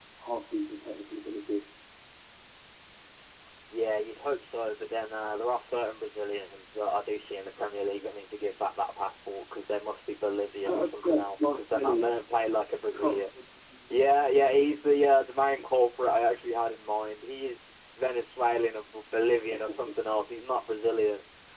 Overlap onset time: 10.7 s

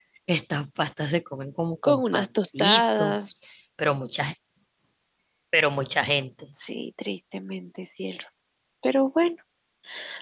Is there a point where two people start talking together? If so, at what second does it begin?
1.8 s

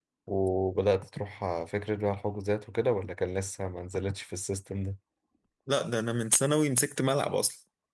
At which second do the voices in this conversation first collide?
none

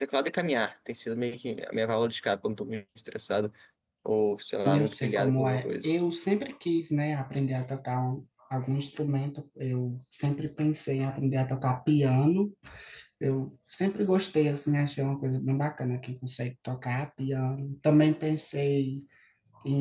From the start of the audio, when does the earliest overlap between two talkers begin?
4.7 s

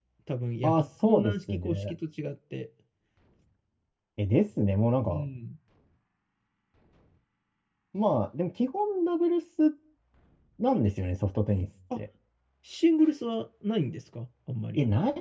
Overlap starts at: 0.6 s

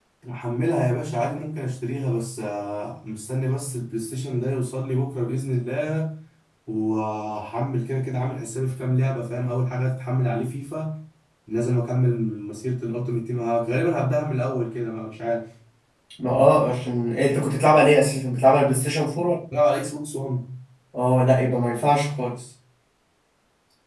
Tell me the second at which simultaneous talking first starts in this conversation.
none

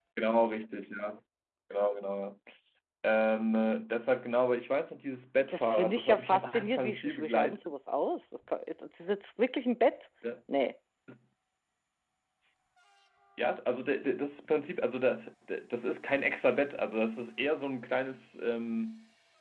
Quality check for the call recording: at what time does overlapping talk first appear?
5.5 s

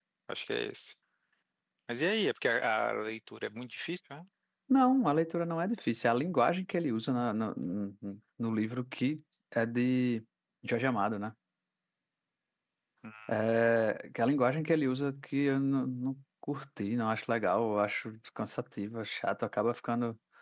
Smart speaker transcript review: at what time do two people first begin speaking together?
none

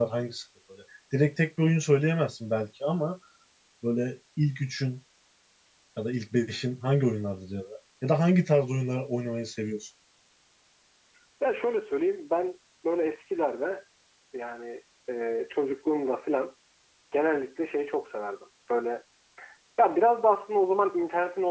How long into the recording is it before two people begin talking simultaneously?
none

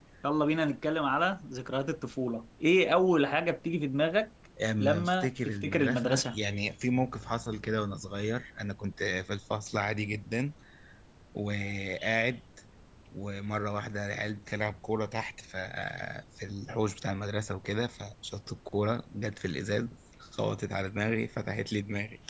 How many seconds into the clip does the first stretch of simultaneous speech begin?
4.6 s

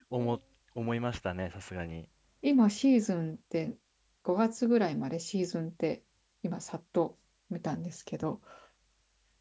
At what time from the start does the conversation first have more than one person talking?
none

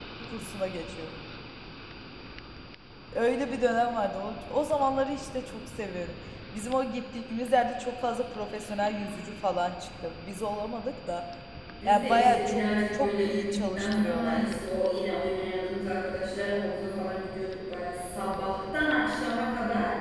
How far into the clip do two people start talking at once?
11.8 s

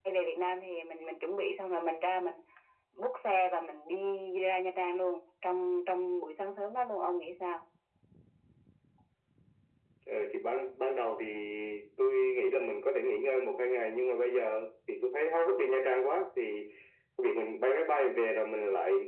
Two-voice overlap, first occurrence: none

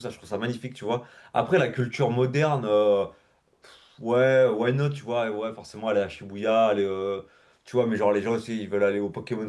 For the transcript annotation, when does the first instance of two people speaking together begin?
none

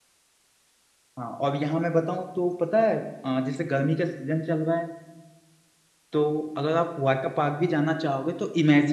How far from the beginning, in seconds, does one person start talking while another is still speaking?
none

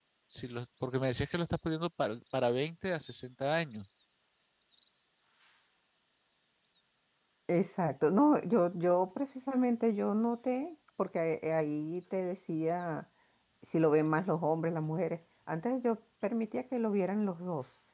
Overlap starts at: none

